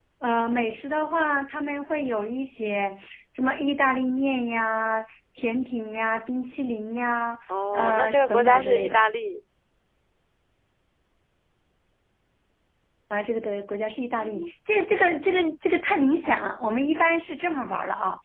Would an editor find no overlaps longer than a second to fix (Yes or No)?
No